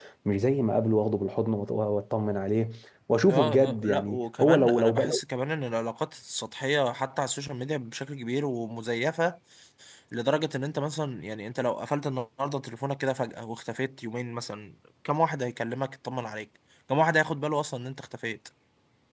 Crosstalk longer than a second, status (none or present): present